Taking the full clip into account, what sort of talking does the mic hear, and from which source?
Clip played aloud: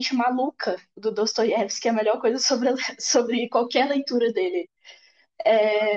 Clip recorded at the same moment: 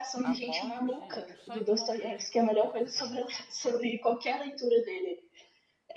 both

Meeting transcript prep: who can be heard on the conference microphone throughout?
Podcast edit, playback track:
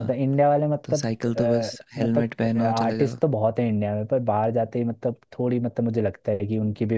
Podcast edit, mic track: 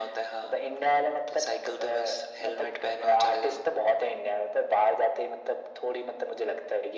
echo only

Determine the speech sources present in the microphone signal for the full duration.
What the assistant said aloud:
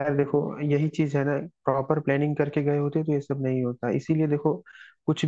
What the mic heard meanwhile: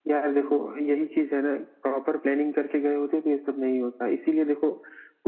echo only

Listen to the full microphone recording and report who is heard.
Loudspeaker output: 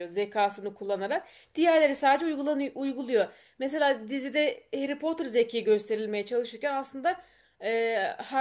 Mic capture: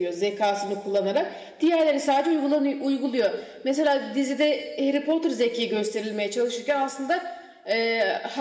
echo only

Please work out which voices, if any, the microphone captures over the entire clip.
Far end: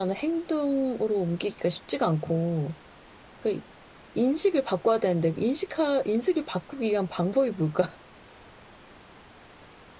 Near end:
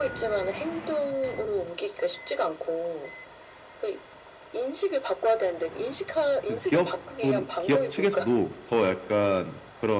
both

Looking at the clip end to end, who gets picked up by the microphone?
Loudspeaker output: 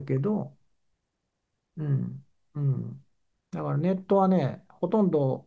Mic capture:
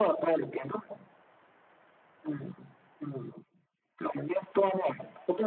echo only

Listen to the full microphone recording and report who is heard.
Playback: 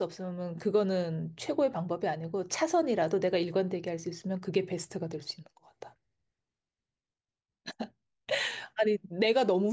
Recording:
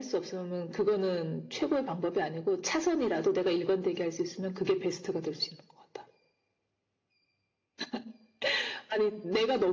echo only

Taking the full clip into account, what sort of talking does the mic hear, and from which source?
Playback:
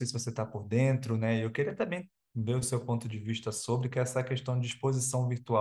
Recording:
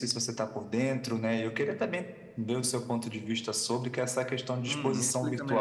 both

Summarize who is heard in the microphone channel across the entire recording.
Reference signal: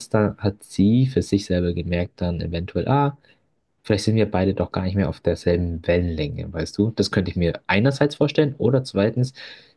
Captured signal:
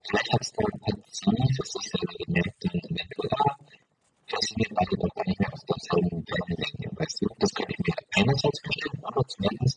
echo only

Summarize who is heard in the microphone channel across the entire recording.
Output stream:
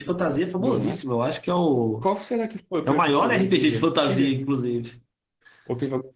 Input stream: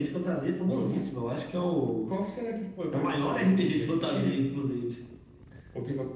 echo only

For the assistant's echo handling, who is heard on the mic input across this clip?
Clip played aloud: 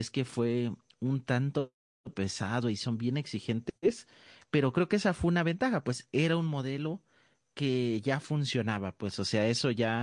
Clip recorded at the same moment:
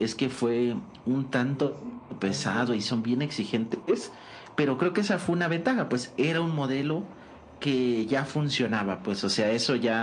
both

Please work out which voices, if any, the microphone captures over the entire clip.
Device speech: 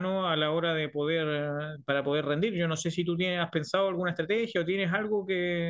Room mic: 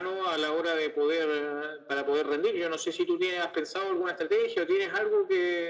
echo only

